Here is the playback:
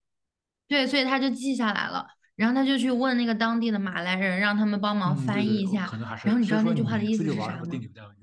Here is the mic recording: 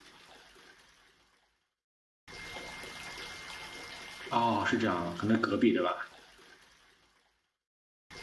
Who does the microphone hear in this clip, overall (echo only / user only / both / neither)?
user only